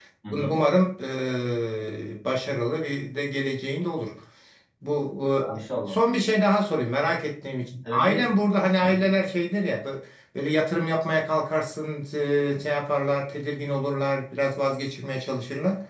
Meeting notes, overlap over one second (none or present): none